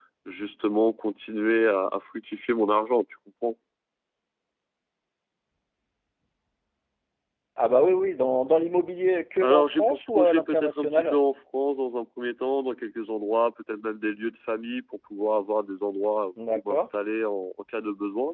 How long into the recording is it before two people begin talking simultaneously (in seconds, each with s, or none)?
9.4 s